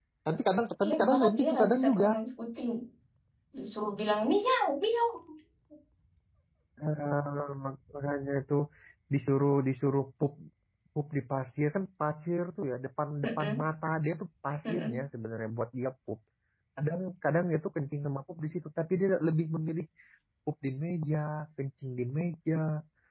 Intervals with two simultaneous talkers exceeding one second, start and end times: 0.8-2.1

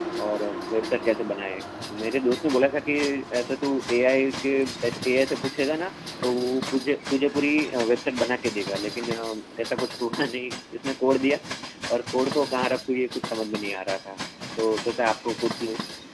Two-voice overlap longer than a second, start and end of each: none

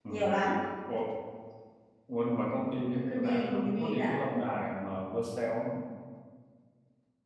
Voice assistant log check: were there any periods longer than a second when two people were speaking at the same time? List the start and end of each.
2.9-4.2

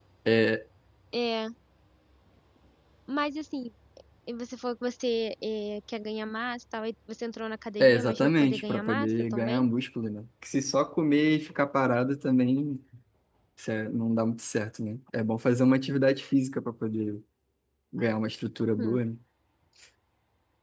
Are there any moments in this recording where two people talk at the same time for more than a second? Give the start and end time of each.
7.8-9.6

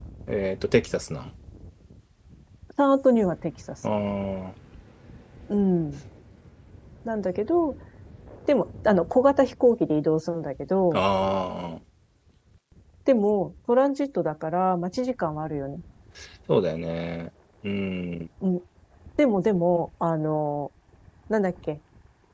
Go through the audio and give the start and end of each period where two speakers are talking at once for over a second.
none

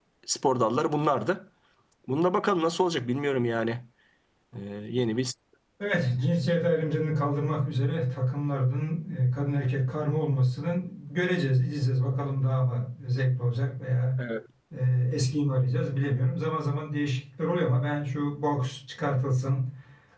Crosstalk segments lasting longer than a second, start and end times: none

